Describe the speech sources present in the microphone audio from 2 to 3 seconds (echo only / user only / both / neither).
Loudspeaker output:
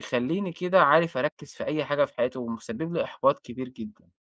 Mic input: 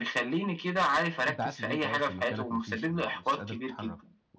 both